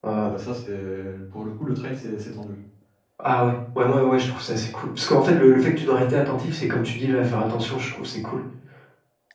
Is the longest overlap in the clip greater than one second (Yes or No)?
No